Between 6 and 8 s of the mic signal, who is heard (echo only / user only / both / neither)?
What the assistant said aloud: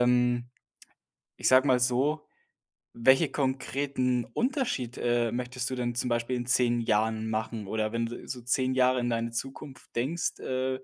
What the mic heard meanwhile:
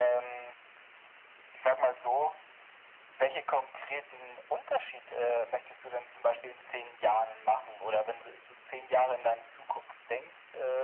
echo only